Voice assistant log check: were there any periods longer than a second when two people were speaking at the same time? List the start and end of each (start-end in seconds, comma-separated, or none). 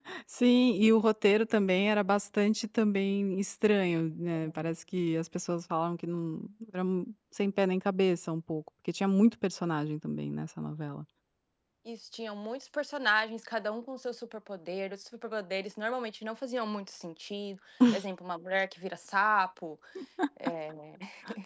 none